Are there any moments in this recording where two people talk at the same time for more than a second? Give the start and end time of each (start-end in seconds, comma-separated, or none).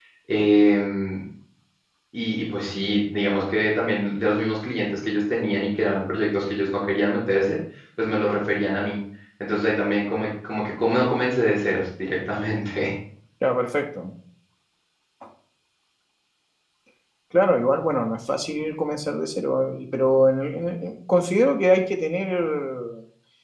none